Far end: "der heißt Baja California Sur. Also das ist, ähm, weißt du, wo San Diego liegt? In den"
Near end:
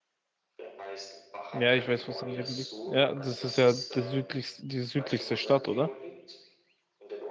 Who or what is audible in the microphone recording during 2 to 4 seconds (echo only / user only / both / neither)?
both